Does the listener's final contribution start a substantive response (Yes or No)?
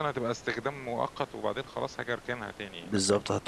Yes